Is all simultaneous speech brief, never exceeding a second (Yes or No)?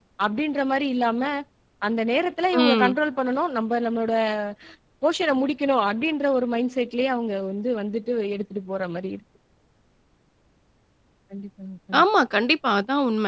Yes